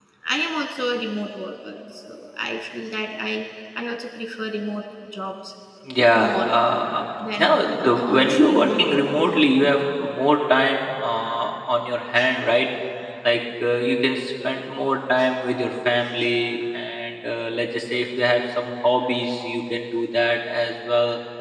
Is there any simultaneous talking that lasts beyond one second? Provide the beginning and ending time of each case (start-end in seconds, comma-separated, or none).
7.3-8.6